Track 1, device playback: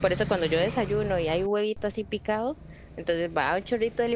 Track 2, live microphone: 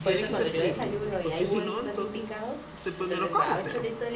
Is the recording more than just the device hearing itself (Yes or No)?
Yes